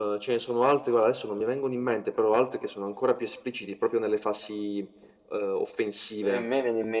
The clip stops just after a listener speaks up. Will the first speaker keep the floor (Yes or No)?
No